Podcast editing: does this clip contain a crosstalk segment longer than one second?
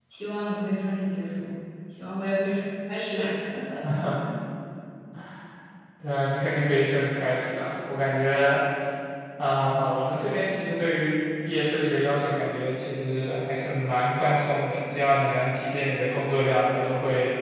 No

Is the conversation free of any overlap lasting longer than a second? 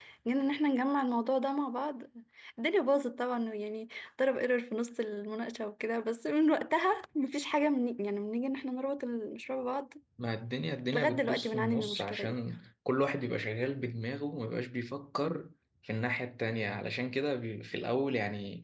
No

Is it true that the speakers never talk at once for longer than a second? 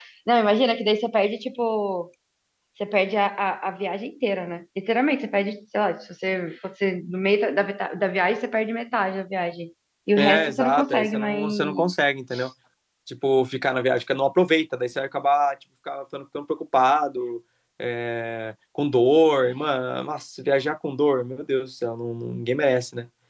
No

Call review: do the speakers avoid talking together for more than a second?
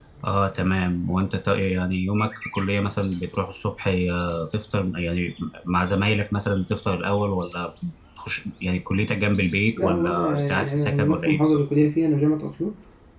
No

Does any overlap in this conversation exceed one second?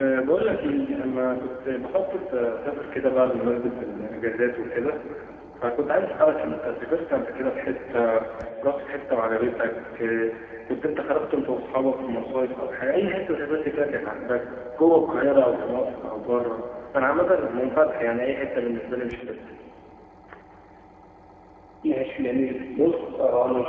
No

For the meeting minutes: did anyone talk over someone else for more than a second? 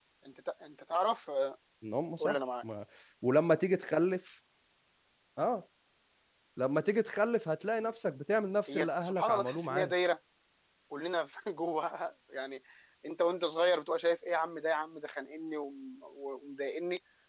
Yes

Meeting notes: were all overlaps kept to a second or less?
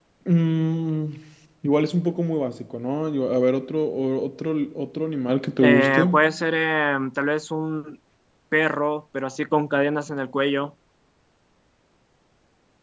Yes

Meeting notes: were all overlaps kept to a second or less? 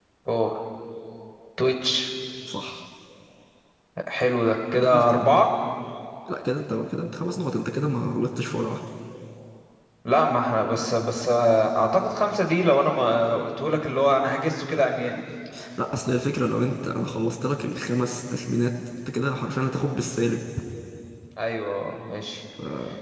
Yes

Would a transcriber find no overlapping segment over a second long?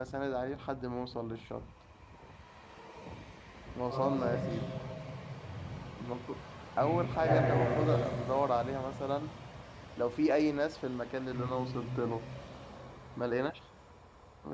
No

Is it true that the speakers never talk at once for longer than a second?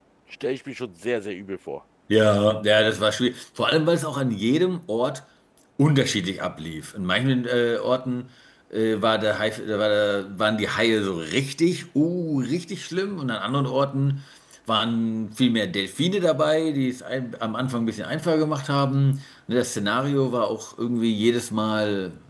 Yes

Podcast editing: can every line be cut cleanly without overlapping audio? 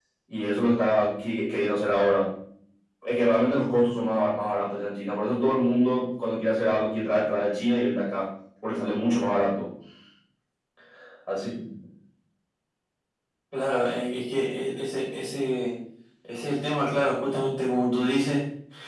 Yes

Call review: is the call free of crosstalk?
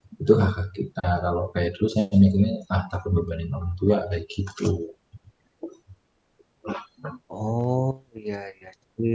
Yes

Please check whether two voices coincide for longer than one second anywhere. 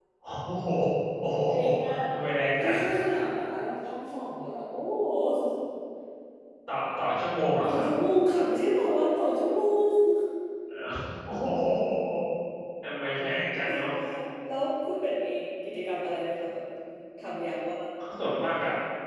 No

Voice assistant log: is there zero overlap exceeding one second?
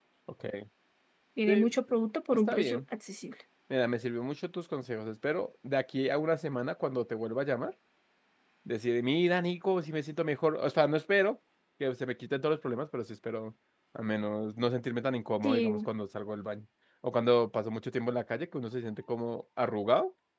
Yes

